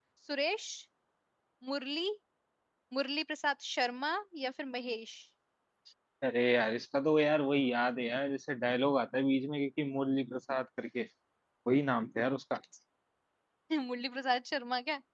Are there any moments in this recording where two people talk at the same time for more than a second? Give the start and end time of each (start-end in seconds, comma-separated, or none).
none